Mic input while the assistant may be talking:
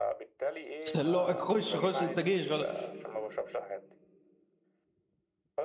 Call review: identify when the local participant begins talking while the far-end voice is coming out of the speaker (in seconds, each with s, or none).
0.9 s